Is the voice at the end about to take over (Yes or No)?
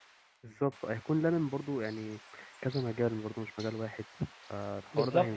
Yes